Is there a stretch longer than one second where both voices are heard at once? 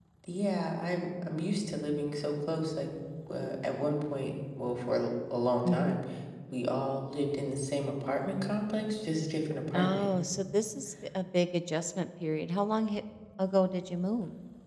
No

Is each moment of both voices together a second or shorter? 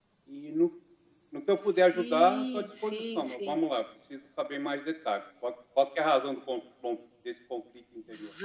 No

